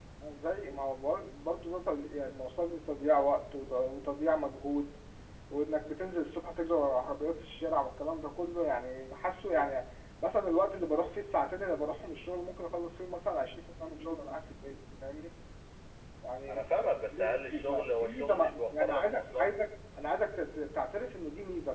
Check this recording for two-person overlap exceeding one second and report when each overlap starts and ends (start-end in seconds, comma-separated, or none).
16.5-19.5